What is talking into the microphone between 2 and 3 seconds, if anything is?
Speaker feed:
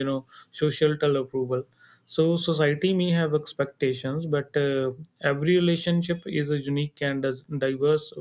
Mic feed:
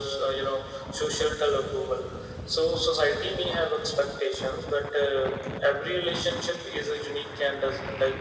echo only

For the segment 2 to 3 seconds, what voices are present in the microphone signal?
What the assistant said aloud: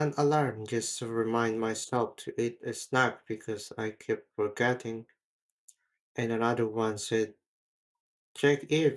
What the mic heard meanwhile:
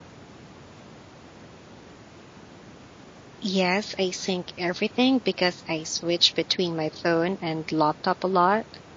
neither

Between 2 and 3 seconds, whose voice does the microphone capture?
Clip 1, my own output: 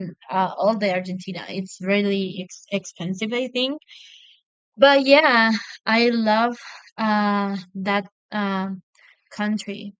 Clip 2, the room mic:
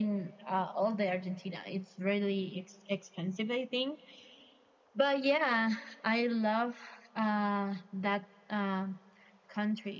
echo only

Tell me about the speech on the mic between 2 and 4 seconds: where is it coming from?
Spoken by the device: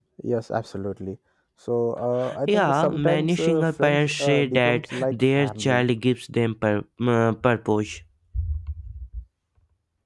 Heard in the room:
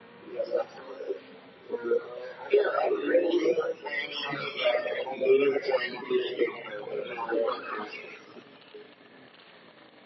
echo only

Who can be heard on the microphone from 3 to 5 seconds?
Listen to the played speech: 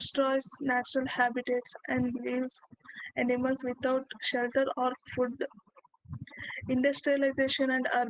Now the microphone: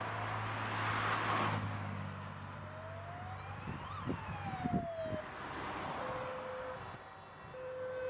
neither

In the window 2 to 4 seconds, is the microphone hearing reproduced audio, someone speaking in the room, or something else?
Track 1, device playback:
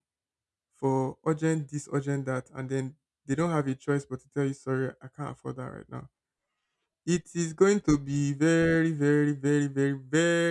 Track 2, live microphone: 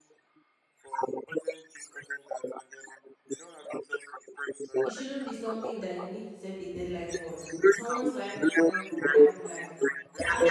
echo only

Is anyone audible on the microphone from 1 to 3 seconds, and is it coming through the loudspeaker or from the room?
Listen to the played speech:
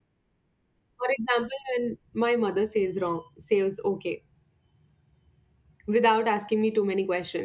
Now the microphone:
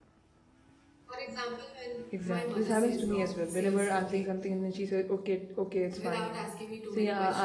both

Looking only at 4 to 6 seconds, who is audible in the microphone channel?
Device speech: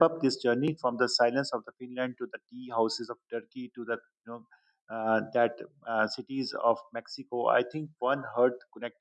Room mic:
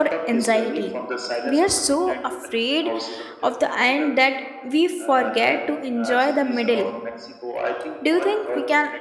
both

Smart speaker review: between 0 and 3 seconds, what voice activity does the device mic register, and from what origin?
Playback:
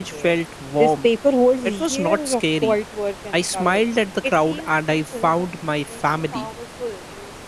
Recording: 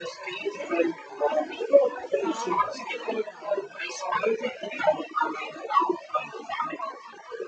both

